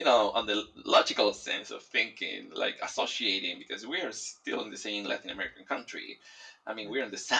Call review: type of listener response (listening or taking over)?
listening